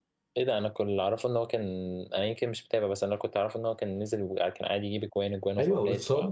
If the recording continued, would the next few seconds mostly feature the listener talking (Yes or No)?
Yes